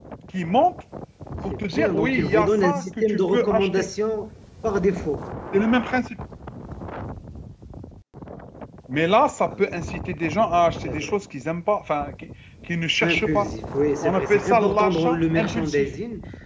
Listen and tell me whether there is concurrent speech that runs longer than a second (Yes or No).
Yes